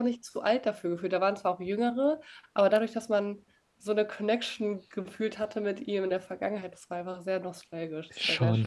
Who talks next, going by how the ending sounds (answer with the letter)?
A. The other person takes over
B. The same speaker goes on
A